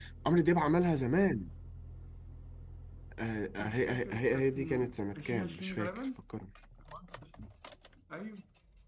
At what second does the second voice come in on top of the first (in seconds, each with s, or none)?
3.6 s